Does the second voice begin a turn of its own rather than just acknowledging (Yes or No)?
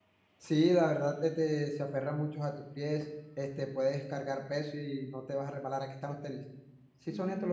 Yes